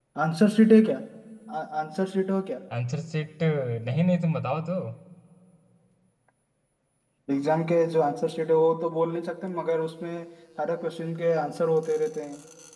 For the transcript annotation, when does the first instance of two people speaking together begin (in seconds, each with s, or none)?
none